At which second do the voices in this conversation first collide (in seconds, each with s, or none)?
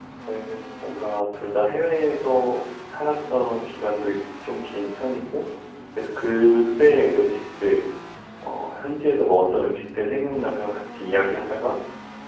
none